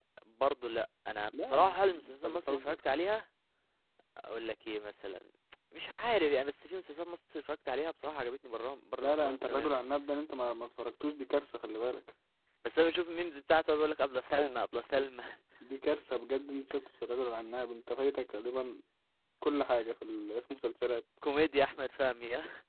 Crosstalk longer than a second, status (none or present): present